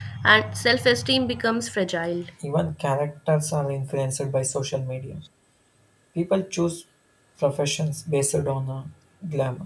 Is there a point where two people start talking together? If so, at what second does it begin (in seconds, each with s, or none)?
none